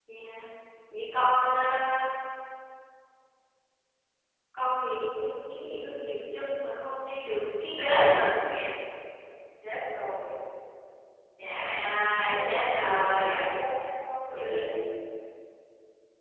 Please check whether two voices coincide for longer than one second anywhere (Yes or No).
Yes